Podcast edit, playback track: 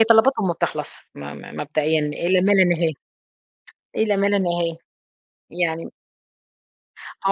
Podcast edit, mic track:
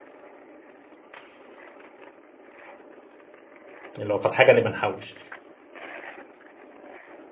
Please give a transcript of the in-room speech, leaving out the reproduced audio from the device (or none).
لو فات حاجة نبقى نحوِّش.